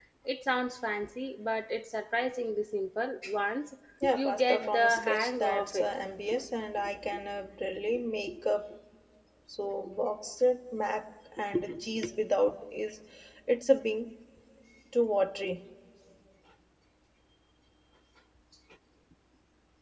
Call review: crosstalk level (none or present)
present